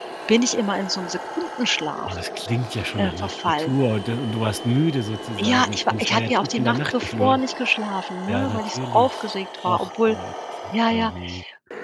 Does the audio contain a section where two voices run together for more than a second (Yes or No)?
Yes